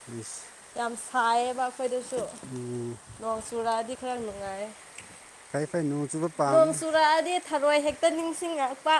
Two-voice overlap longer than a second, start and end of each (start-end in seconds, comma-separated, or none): none